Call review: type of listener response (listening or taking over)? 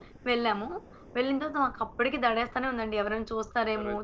taking over